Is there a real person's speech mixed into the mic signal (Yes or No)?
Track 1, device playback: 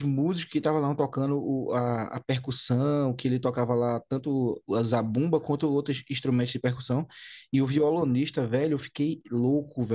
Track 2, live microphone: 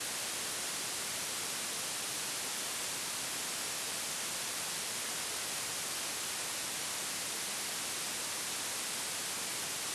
No